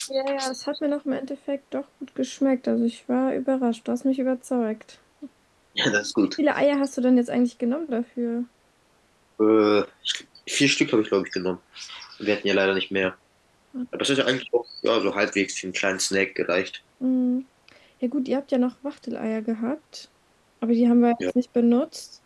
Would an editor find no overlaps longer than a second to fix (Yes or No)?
Yes